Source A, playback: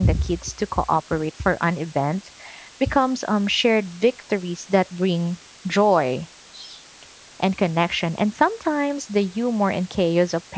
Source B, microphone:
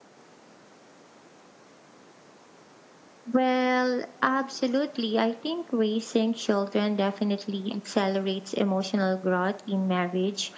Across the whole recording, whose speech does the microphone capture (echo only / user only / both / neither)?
user only